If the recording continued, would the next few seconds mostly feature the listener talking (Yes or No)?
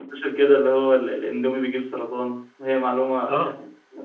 Yes